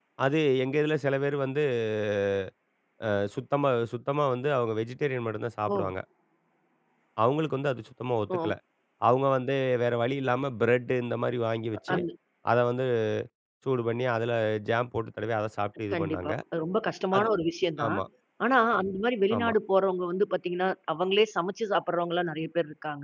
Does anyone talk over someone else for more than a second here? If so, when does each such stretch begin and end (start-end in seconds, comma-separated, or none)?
none